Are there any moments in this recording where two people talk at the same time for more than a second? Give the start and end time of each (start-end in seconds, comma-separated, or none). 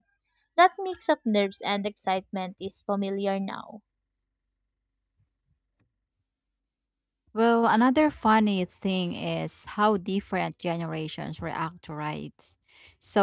none